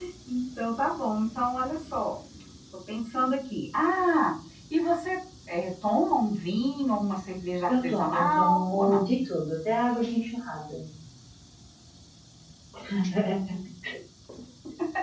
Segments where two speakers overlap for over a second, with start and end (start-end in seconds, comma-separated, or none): 7.7-9.0